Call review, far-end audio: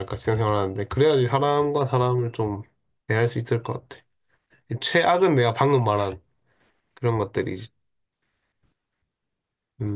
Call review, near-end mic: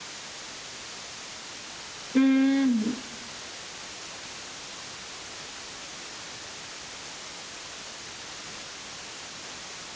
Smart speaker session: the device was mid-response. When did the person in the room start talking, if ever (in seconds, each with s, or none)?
2.2 s